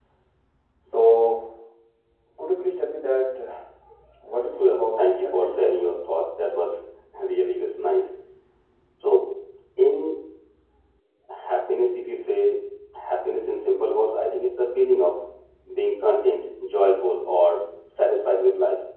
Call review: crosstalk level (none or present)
present